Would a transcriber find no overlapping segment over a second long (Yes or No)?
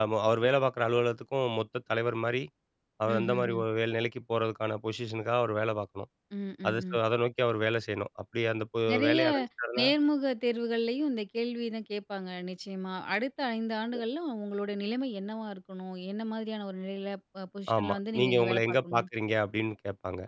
No